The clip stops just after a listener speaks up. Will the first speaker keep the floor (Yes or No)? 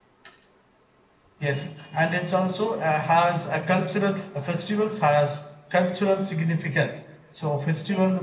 Yes